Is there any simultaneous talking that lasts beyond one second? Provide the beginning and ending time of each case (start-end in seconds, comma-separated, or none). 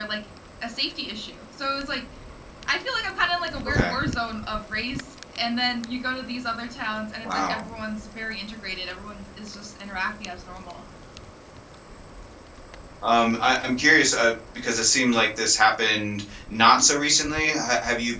none